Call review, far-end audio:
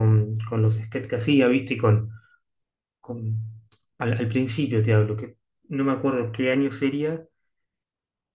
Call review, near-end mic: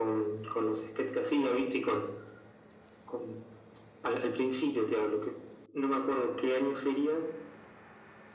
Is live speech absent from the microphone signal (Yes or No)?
Yes